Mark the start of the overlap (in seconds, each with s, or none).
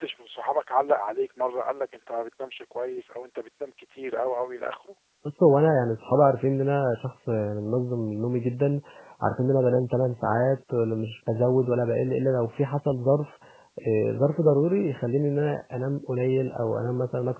none